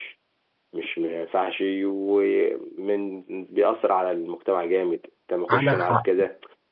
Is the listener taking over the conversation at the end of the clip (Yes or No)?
No